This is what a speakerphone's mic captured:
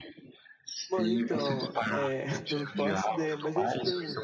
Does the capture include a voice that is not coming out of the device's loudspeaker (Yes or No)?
Yes